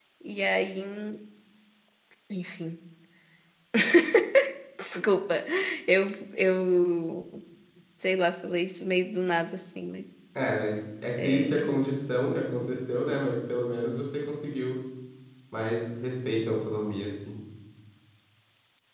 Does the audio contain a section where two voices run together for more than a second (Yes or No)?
No